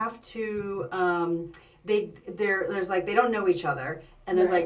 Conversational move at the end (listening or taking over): listening